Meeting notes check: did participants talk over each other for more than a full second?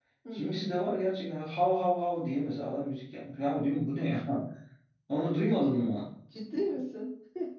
No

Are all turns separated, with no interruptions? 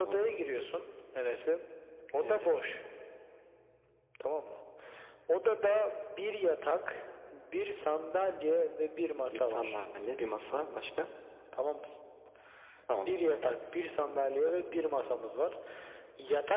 No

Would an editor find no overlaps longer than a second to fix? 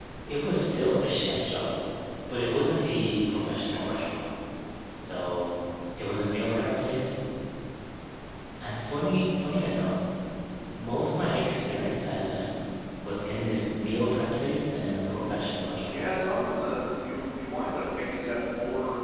Yes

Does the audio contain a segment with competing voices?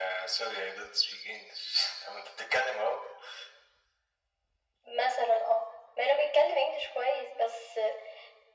No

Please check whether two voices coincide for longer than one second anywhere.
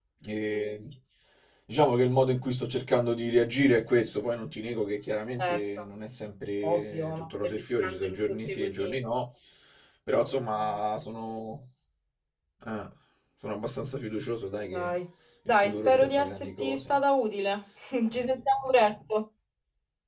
Yes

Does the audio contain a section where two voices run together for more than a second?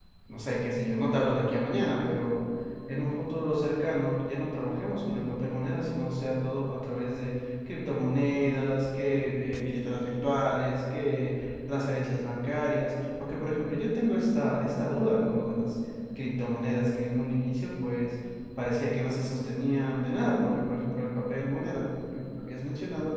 No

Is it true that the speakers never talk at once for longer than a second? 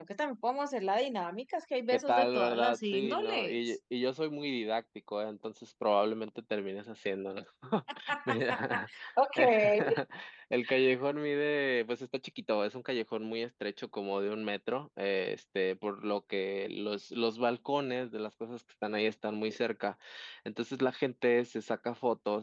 No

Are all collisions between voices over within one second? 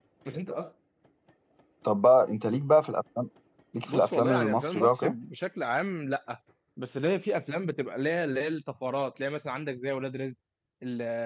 No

